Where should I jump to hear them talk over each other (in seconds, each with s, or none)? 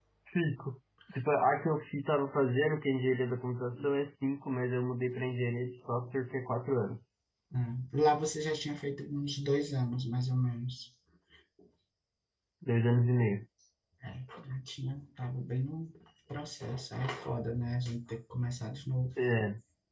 none